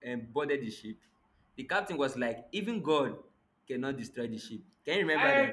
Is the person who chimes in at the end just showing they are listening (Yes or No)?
No